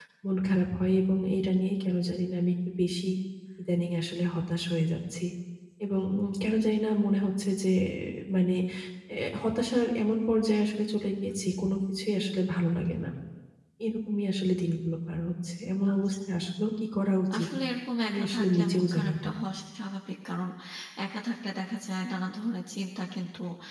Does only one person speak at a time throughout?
No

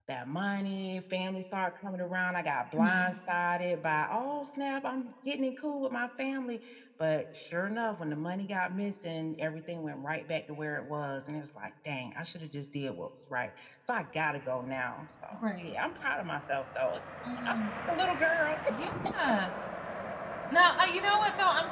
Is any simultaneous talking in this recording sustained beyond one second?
No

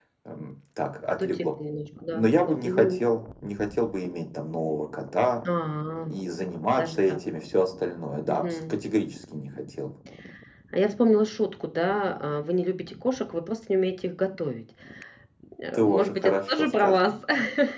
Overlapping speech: Yes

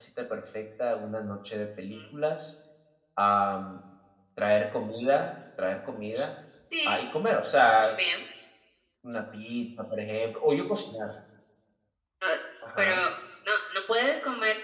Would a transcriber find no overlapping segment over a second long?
Yes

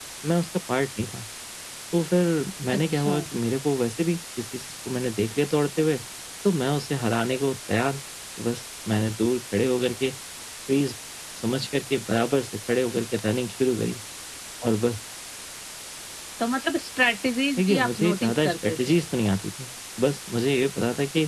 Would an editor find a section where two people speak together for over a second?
Yes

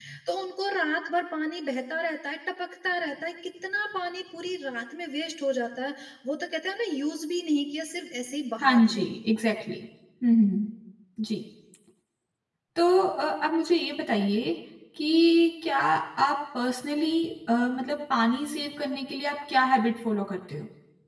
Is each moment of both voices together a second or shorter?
Yes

